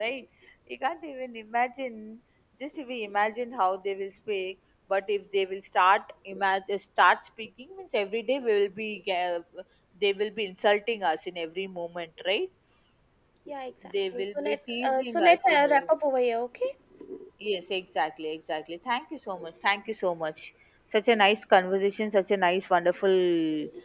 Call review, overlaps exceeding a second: present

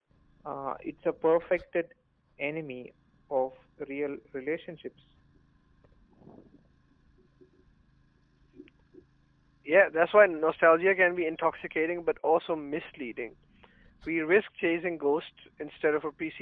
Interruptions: none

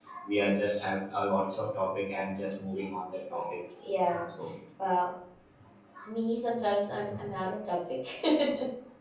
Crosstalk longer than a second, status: none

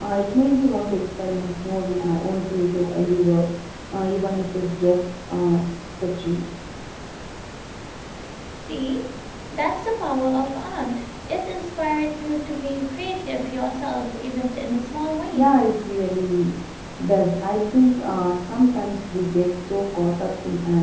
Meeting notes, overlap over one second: none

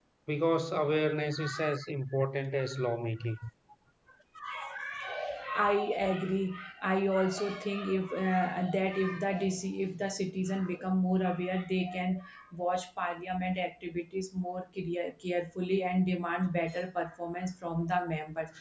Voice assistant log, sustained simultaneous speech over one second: none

